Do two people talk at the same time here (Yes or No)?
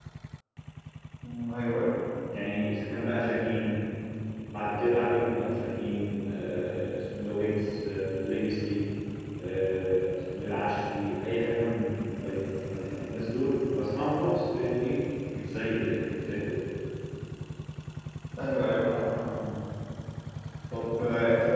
No